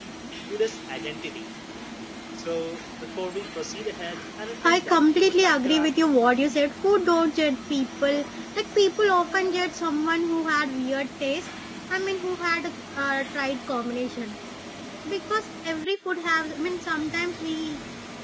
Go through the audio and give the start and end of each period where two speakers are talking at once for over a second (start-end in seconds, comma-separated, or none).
4.6-6.0